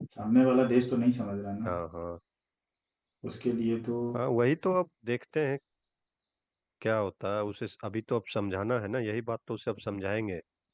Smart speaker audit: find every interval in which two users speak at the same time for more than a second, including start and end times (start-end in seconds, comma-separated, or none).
none